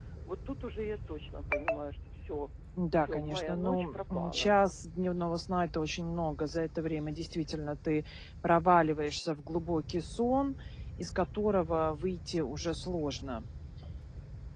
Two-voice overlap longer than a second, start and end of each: 3.0-4.5

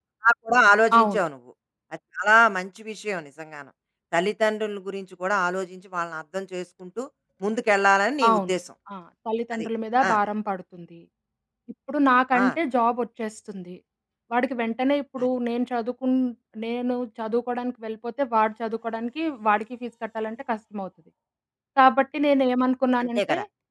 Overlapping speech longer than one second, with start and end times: none

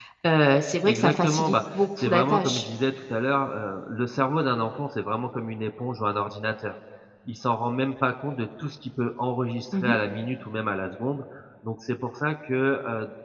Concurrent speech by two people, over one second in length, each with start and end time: 0.8-2.6

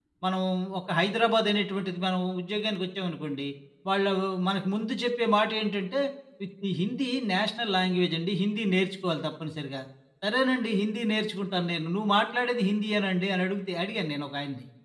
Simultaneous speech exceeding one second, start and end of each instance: none

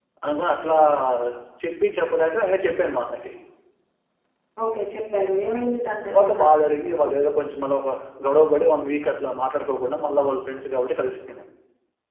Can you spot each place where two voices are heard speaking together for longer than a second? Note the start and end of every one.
none

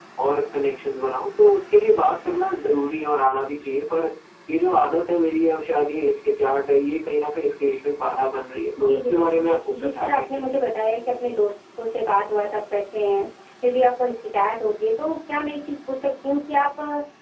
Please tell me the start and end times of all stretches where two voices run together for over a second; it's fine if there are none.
8.9-10.4

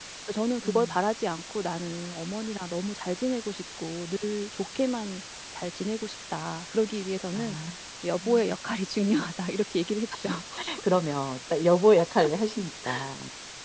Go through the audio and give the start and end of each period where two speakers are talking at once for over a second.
none

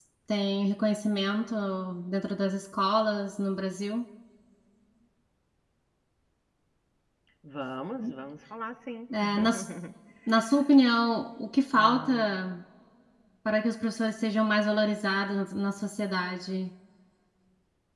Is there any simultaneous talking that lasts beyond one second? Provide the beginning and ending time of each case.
none

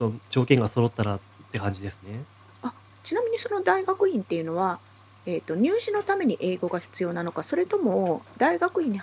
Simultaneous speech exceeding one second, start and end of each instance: none

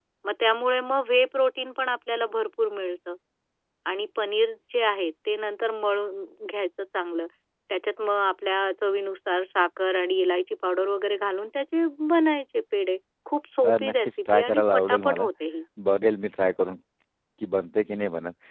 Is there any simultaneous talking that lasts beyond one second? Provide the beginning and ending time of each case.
13.6-15.3

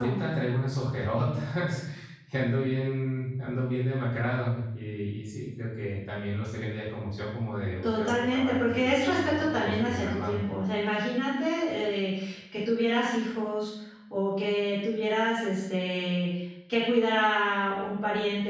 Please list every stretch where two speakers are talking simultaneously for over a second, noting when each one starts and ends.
7.8-10.4

